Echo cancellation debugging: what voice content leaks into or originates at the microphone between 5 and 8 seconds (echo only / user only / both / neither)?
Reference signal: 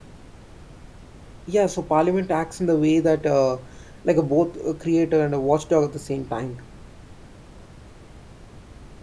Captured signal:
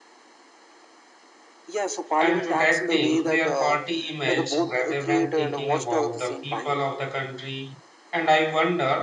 both